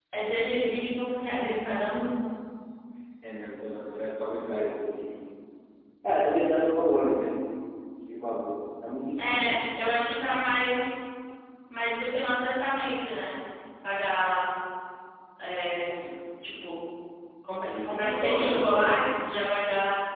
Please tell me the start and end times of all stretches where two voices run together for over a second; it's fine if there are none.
17.7-19.0

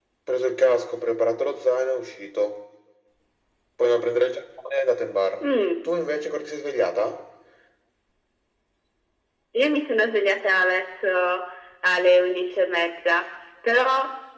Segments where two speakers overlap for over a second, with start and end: none

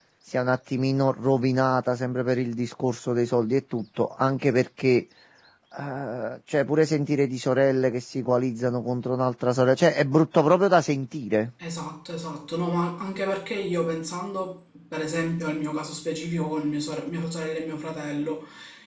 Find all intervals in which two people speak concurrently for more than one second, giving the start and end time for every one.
none

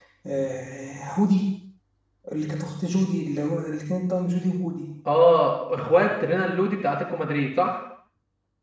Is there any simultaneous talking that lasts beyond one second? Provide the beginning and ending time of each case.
none

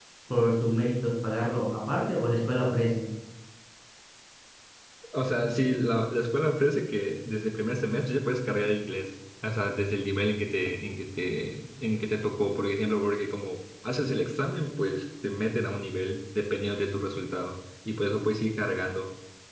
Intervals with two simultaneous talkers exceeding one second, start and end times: none

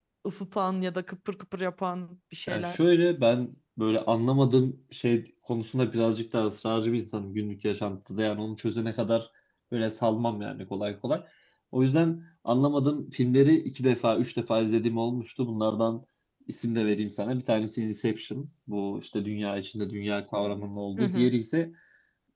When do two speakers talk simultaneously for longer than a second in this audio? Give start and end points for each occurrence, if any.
none

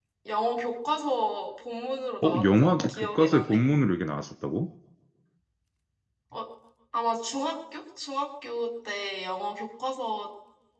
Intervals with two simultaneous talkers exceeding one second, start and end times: 2.2-3.6

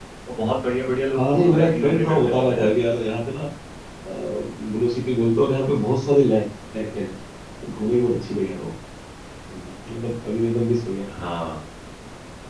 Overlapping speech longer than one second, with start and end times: 1.1-2.8

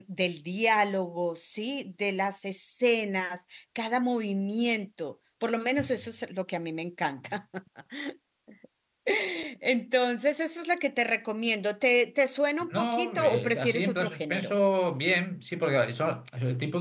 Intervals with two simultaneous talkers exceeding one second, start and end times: 12.6-14.5

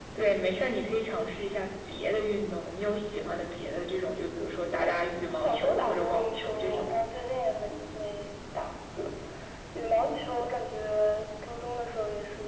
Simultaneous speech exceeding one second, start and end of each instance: 5.4-6.9

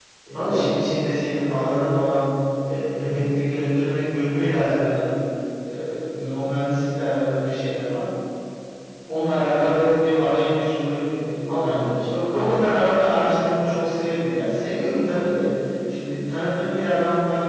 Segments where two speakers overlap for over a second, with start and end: none

